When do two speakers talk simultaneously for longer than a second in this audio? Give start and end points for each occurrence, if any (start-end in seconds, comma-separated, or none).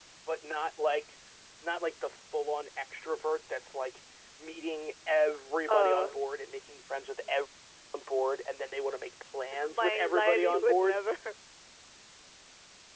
9.7-11.0